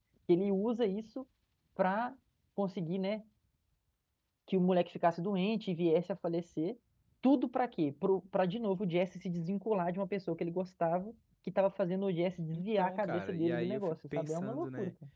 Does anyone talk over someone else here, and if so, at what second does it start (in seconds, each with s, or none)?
12.5 s